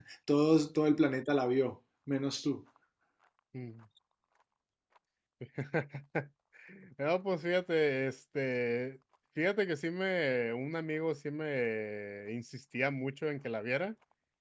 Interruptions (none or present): none